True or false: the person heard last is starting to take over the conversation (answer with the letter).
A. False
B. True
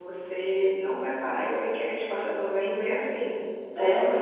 A